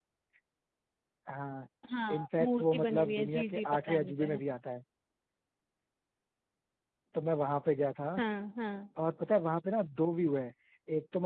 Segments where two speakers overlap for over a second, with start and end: 2.1-4.4

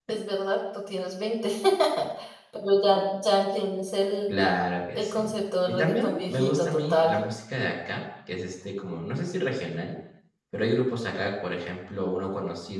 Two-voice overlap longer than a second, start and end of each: 5.7-7.1

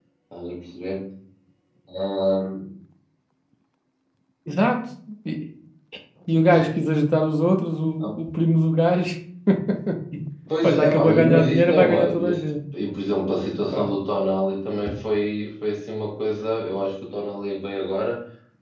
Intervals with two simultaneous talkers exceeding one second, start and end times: 10.6-12.4

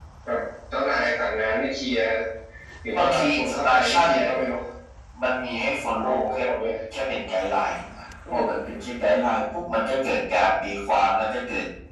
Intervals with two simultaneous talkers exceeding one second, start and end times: 3.0-4.3

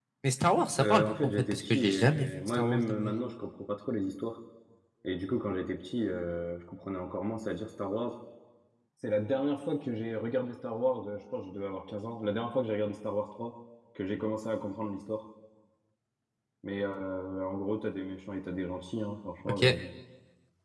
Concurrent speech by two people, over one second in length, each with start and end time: 0.8-3.2

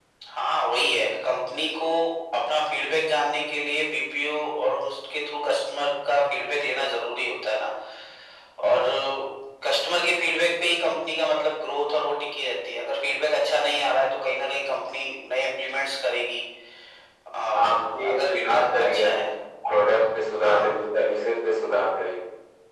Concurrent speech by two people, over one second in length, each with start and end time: 17.6-19.3

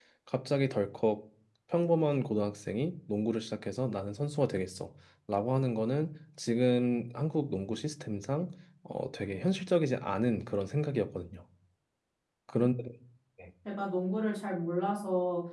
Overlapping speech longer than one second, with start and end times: none

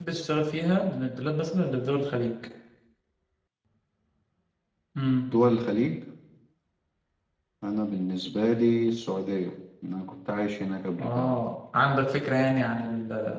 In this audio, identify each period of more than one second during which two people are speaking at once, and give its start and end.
none

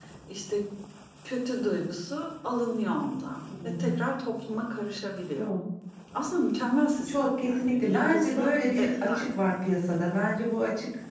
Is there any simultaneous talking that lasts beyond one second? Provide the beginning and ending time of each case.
7.1-9.4

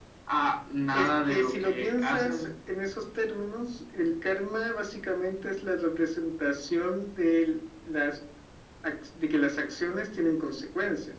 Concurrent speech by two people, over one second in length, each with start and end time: 0.9-2.5

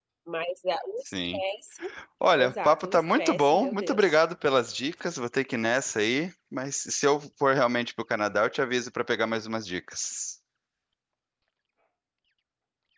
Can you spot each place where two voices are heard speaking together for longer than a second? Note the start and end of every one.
2.4-4.2

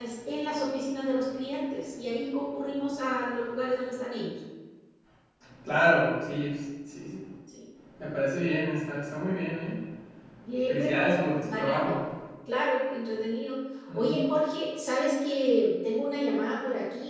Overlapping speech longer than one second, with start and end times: 10.7-11.9

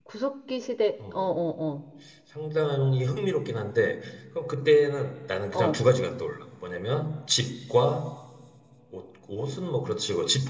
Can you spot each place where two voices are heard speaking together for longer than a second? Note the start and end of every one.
none

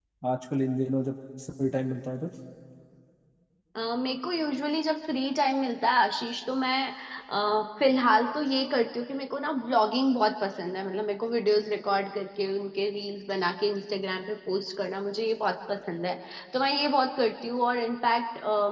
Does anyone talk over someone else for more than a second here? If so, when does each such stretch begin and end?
none

